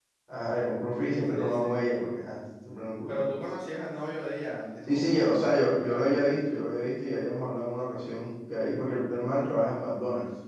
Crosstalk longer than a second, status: present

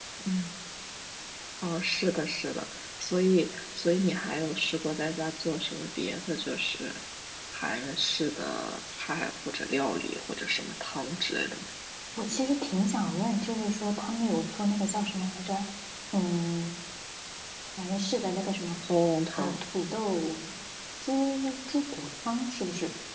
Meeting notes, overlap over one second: none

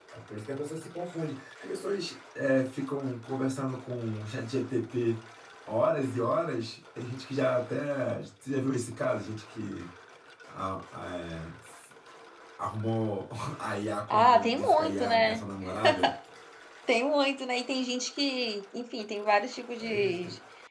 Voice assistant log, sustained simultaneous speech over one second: present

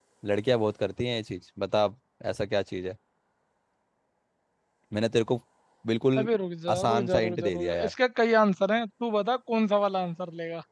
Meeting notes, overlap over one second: present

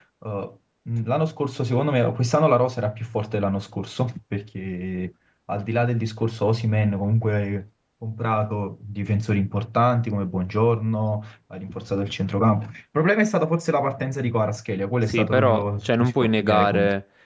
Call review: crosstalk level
present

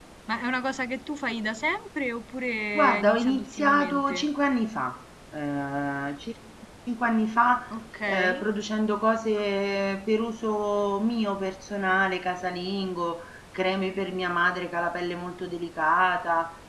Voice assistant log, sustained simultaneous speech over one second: present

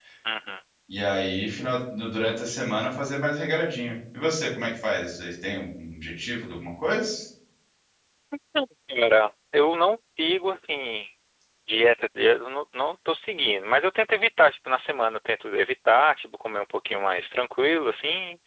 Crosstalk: none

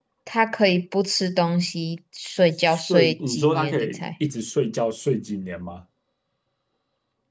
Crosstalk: present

